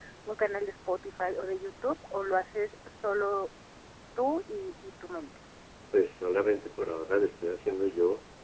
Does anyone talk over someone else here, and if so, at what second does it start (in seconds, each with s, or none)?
none